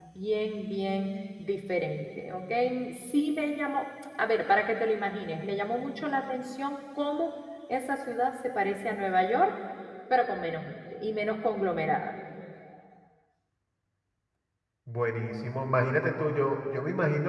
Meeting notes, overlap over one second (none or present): none